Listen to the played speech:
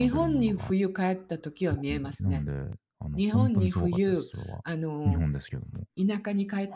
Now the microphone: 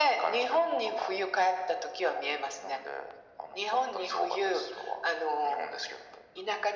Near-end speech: none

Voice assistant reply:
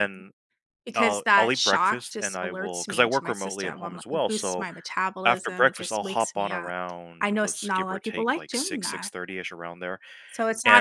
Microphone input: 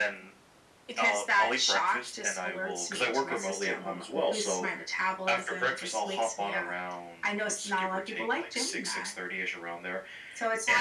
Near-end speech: none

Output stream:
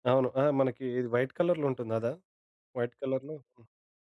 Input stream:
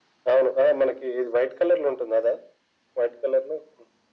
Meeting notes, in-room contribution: none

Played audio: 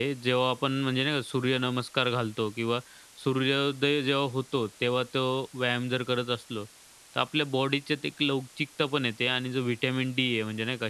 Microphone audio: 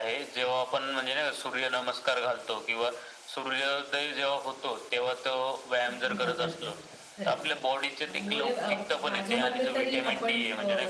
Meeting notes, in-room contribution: present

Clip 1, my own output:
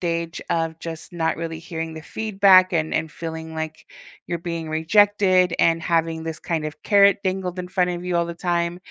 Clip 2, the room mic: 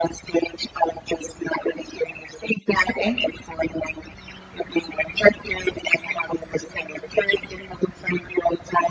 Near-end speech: present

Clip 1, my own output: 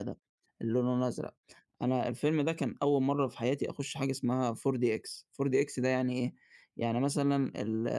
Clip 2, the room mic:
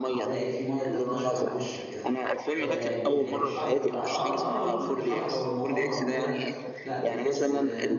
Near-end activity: present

